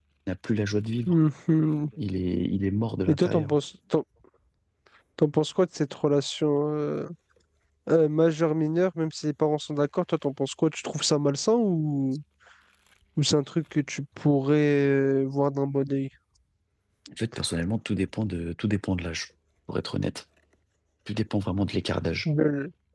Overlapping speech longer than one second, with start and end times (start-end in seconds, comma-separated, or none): none